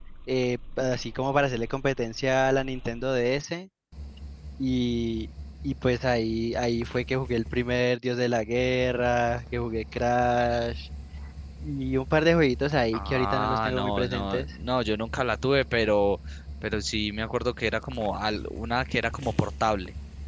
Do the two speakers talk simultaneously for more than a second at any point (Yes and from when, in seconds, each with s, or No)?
Yes, from 12.9 s